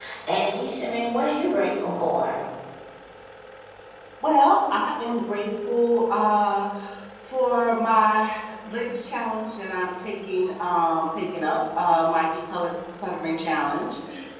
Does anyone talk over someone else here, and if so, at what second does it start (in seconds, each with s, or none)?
none